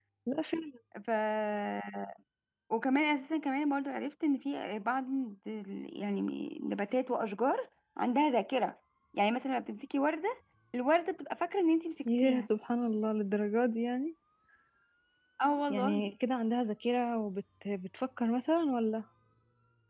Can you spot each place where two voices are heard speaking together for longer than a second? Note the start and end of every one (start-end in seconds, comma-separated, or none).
none